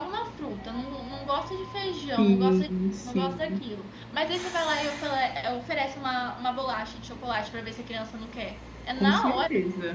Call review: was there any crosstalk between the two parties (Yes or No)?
Yes